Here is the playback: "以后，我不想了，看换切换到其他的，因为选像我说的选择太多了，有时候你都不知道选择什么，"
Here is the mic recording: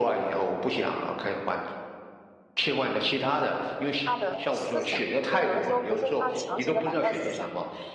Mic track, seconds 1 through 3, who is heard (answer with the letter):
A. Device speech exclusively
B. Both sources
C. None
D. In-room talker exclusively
A